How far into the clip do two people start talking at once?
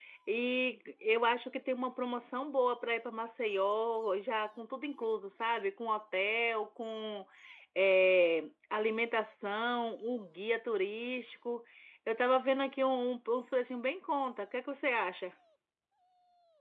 none

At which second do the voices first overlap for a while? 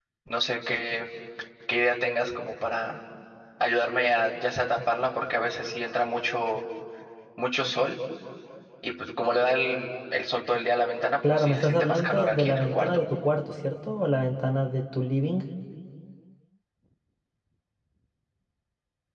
11.2 s

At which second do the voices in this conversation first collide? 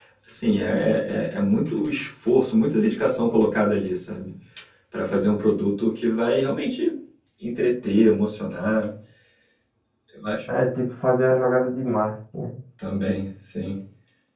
none

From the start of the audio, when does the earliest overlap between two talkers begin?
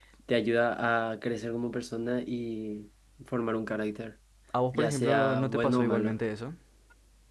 4.7 s

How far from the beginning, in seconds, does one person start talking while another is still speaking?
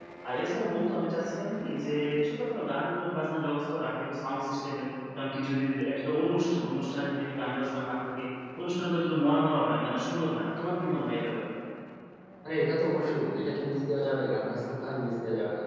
none

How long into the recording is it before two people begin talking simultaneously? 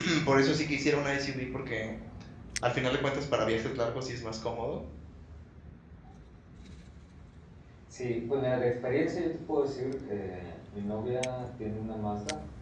none

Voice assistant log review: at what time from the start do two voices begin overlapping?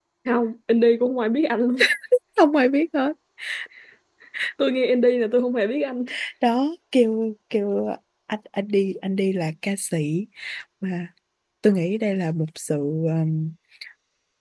none

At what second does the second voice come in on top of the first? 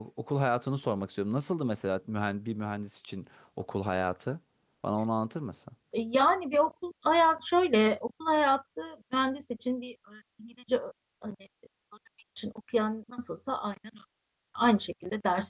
none

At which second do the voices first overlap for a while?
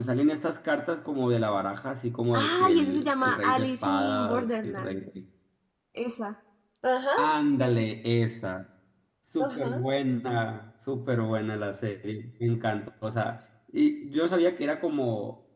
2.3 s

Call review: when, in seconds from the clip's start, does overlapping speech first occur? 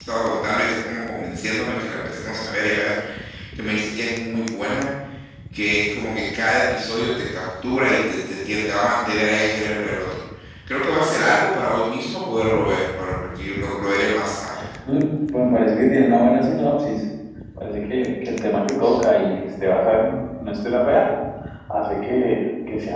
none

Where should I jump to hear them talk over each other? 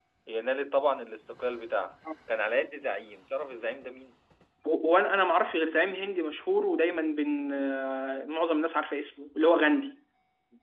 none

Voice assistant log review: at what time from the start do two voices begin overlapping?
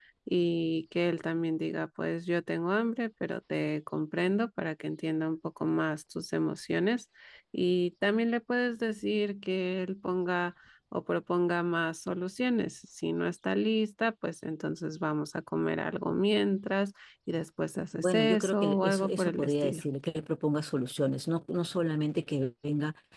17.9 s

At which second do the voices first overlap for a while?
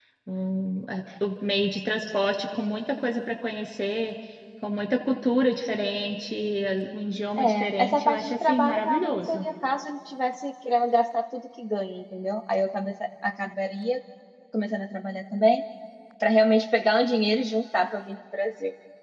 7.4 s

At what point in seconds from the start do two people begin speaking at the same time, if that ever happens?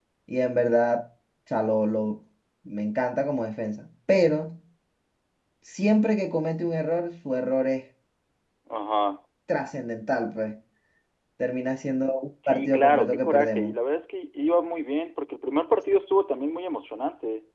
12.4 s

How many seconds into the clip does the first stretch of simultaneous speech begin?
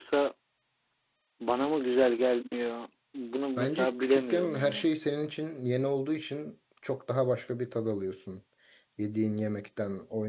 3.6 s

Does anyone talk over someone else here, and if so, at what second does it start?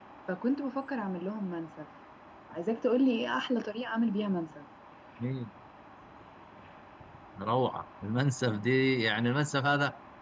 none

